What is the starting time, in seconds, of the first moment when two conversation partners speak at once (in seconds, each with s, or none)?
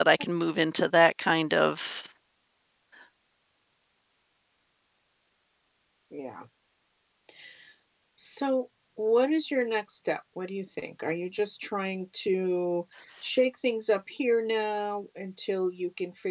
none